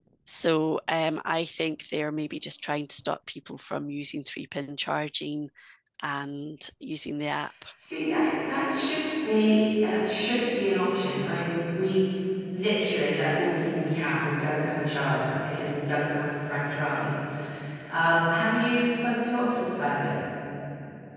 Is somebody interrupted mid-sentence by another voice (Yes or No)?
No